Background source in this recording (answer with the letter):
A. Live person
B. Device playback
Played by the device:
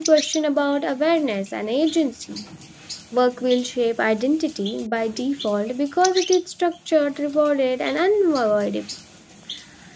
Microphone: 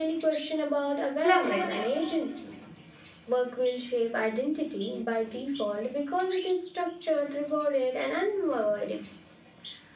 B